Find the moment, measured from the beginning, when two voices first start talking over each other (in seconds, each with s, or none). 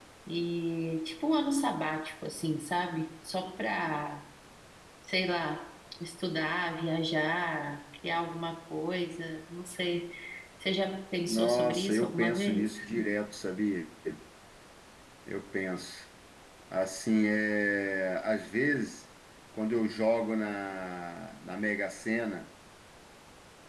11.3 s